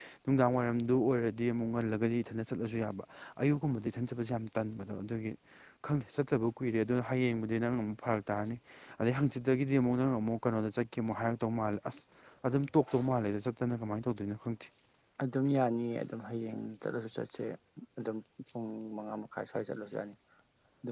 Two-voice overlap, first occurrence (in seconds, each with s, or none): none